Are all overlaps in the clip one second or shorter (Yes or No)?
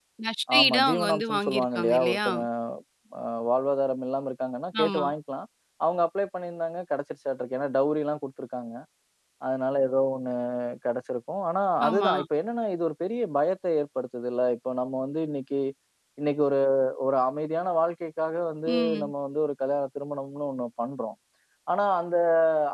No